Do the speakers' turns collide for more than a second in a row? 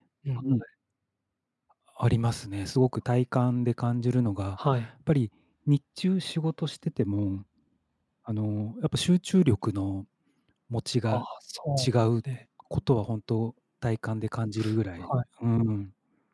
No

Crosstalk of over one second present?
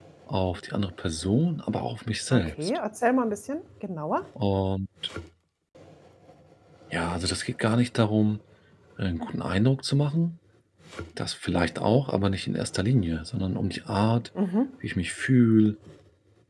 No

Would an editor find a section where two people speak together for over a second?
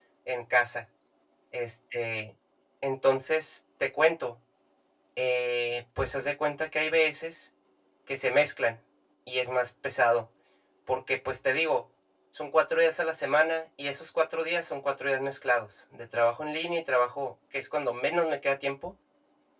No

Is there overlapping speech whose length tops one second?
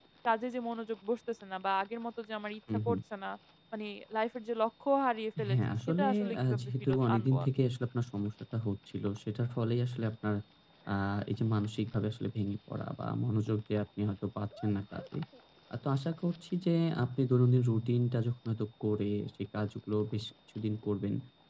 Yes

